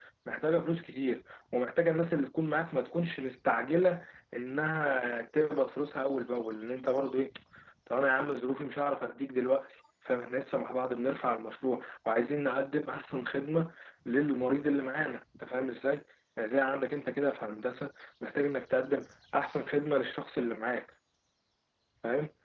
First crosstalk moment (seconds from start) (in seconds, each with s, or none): none